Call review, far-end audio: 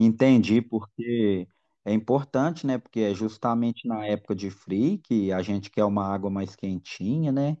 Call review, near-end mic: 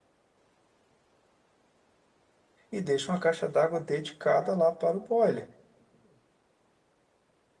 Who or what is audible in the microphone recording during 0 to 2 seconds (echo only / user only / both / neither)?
neither